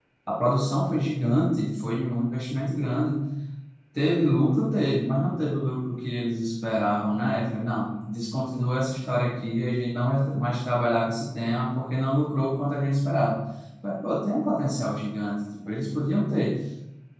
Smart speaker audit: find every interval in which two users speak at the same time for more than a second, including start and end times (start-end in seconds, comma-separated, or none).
none